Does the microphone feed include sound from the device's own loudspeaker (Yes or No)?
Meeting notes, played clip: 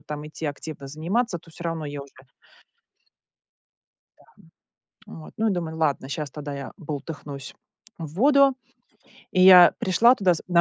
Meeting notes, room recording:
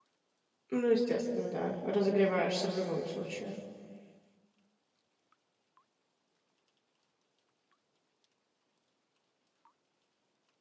No